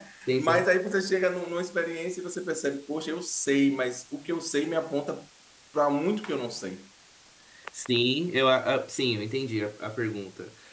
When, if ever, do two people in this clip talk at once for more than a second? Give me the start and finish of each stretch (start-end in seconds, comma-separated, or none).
none